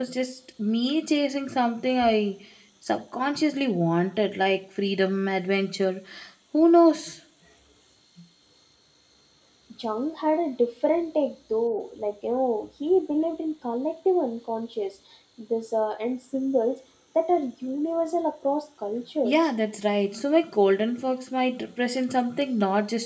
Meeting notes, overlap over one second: none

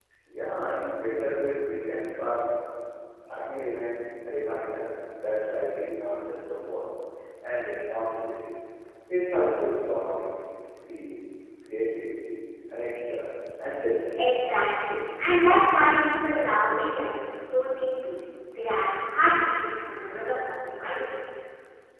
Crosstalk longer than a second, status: none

